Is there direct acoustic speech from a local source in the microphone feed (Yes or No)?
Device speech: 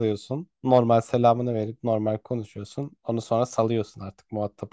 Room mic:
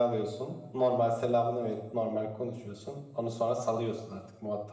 No